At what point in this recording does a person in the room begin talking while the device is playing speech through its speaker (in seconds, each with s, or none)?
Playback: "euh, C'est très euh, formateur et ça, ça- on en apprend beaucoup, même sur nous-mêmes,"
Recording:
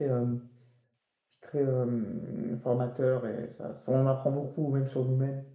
none